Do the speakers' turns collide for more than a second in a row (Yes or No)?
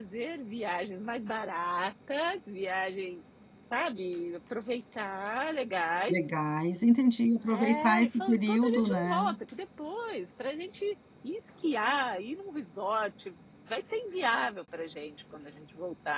Yes